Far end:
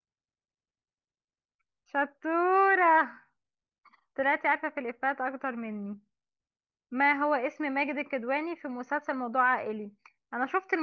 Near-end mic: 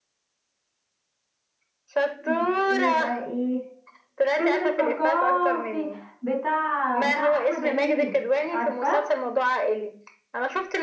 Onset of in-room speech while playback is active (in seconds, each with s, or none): 2.2 s